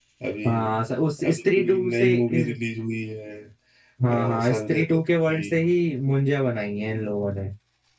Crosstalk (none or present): present